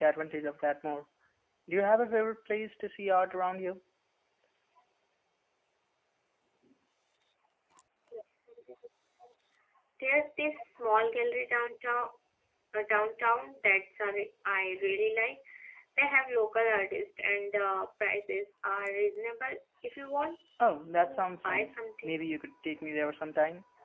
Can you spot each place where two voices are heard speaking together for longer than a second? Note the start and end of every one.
21.0-22.2

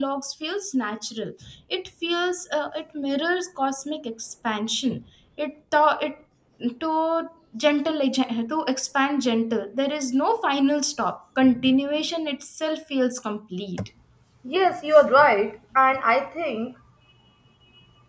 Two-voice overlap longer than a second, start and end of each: none

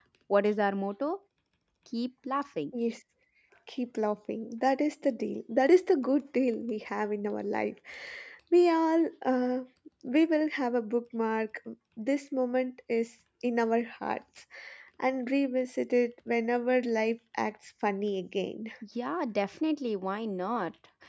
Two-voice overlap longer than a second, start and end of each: none

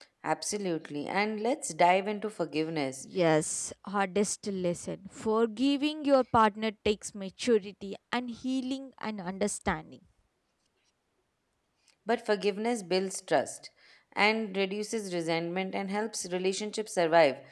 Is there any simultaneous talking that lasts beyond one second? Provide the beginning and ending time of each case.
none

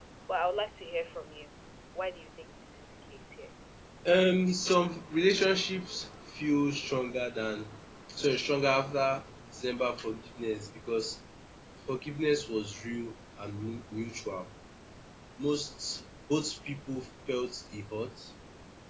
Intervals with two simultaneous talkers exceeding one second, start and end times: none

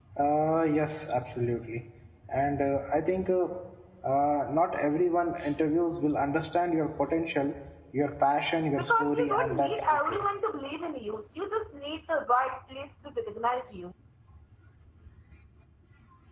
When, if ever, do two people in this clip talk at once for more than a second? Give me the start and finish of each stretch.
8.9-10.2

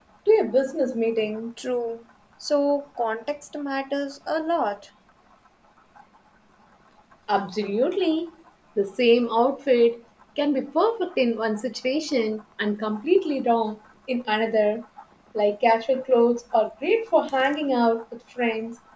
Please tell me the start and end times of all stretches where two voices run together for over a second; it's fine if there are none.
none

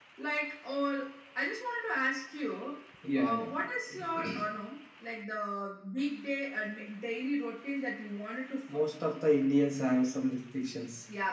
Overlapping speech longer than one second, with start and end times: none

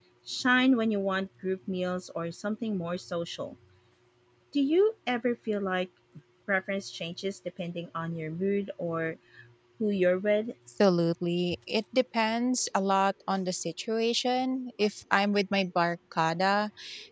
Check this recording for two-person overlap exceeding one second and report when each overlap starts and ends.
none

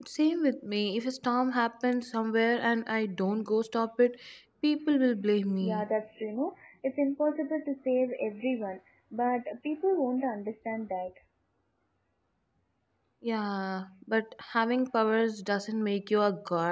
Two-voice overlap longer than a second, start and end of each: none

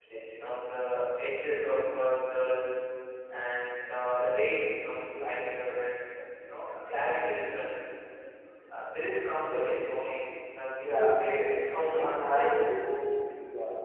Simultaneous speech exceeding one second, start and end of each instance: 10.8-12.7

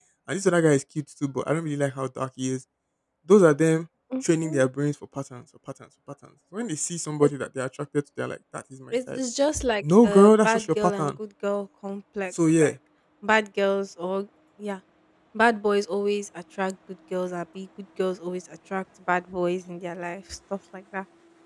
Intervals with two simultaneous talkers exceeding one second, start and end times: 9.8-11.1

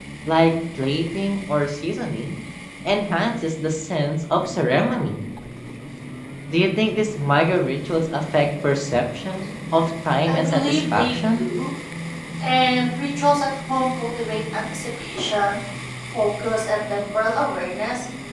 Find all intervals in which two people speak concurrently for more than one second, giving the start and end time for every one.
10.3-11.5

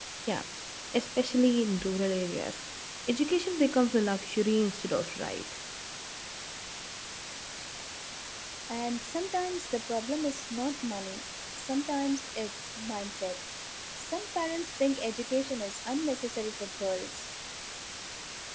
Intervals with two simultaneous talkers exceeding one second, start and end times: none

